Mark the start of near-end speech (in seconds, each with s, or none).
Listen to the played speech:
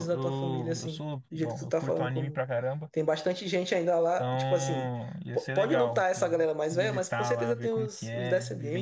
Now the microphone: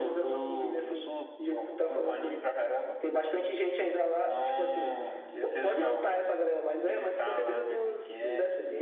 none